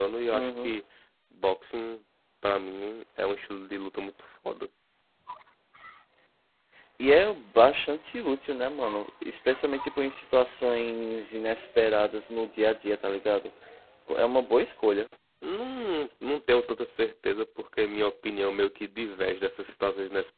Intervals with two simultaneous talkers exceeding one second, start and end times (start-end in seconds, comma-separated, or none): none